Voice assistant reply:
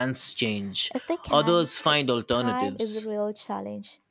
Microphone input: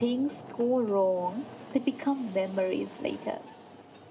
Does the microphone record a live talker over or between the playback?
Yes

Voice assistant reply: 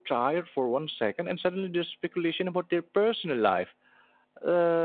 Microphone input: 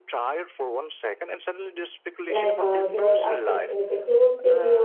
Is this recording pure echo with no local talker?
No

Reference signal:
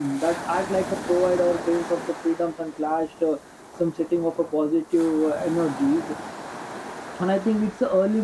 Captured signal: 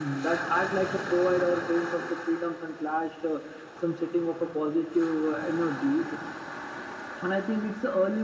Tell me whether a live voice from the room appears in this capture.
No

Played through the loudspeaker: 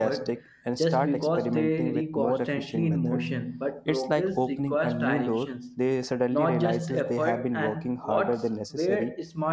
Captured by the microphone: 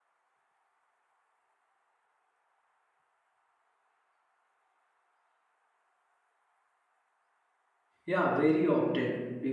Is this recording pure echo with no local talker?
No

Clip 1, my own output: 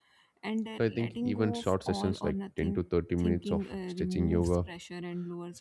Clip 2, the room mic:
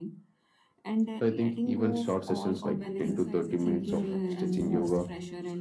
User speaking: Yes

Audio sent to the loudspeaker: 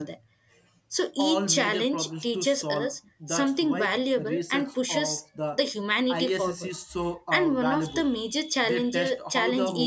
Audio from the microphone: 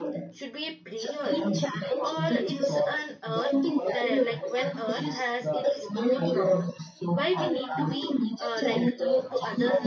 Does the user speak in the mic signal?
Yes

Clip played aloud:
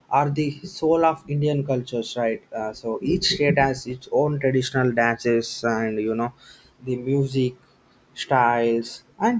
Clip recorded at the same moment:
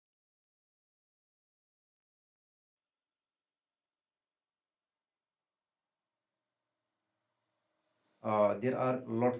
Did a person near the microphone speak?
Yes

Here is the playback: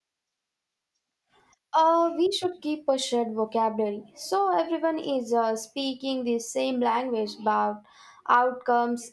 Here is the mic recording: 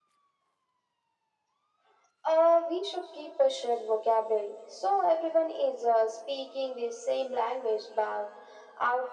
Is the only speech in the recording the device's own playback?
Yes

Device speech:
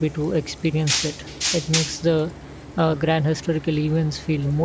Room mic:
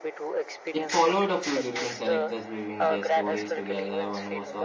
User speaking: Yes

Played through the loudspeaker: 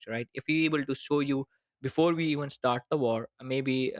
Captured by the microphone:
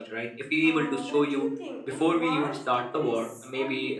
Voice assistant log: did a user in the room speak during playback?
Yes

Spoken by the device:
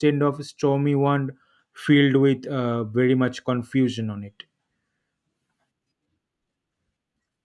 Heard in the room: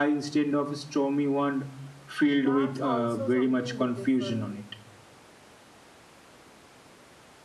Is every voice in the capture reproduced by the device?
No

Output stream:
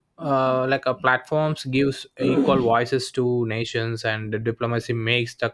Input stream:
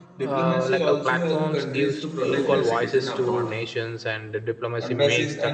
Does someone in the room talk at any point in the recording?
Yes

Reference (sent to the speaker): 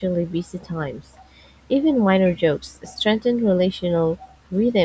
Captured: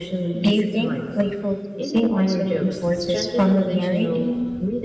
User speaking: Yes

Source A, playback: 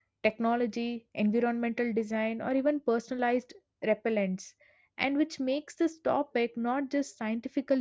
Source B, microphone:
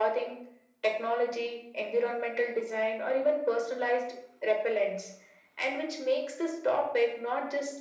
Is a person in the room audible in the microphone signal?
No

